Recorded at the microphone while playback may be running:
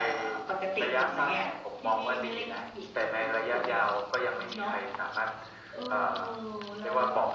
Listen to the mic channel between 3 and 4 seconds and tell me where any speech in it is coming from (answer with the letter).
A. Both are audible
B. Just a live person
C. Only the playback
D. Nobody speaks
C